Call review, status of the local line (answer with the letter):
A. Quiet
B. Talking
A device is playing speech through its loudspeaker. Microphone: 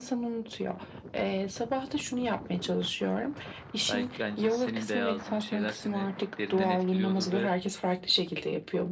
B